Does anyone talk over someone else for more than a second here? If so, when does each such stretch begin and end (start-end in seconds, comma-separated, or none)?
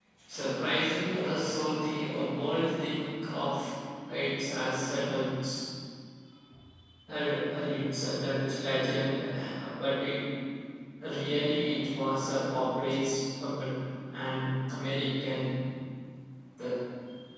none